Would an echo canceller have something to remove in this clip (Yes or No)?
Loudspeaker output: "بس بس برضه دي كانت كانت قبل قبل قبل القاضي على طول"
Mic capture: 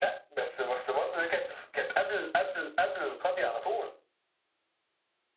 Yes